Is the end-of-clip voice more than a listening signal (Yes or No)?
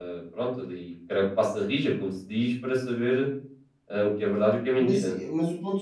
Yes